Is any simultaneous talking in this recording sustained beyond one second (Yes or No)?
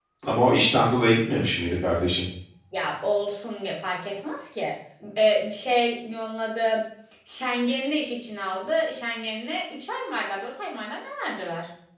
No